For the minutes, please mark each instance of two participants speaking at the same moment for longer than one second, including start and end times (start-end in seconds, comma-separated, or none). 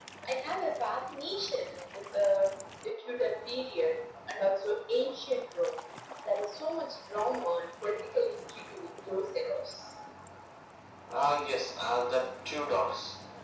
none